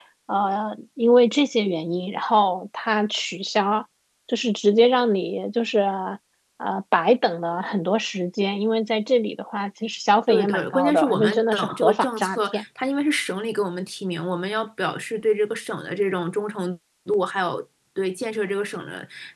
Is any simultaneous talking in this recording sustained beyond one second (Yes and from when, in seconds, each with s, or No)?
Yes, from 10.3 s